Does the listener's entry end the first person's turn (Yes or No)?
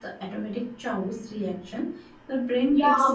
Yes